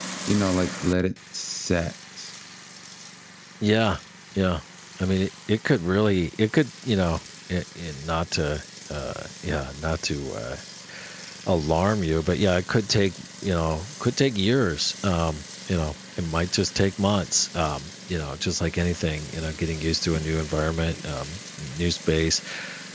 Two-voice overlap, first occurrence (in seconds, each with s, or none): none